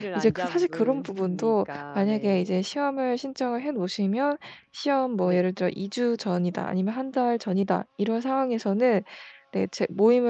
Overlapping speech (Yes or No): Yes